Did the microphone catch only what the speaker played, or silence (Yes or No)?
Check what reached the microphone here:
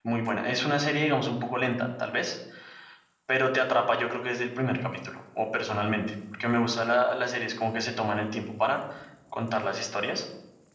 No